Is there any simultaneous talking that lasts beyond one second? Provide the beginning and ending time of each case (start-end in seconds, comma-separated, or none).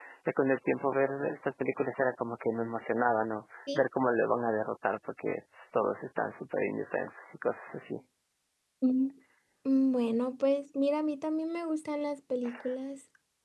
none